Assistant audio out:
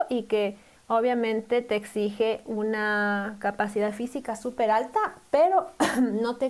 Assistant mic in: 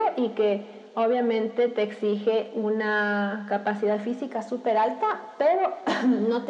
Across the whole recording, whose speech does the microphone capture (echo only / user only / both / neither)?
echo only